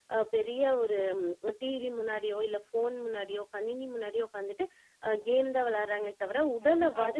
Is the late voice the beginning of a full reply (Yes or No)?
Yes